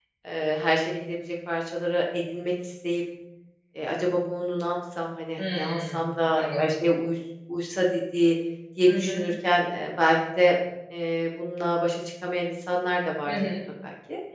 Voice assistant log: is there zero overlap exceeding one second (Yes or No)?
No